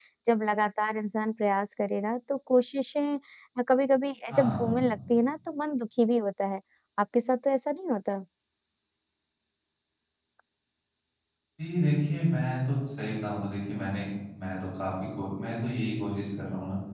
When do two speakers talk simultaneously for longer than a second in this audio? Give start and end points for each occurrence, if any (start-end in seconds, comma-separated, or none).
none